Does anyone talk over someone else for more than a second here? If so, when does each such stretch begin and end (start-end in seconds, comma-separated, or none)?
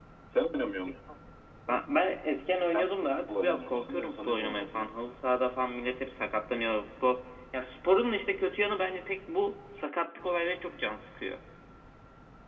2.7-5.0